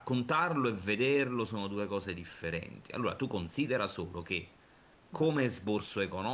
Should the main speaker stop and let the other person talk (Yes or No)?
No